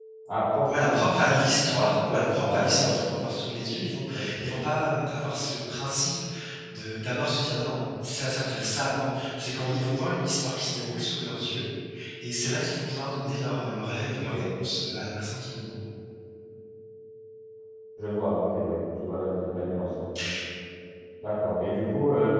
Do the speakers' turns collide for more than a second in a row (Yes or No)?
Yes